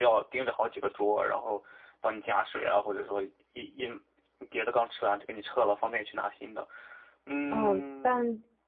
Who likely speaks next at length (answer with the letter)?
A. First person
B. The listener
B